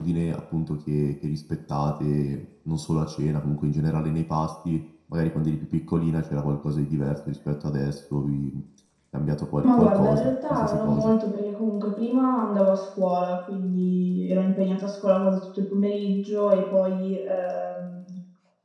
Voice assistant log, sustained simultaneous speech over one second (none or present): present